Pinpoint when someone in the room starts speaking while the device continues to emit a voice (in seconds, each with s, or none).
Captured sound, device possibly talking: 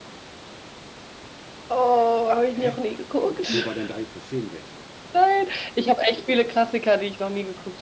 2.5 s